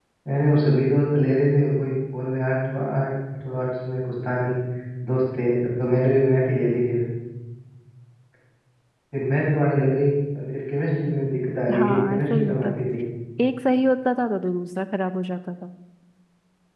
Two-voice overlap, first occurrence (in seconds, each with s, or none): 11.7 s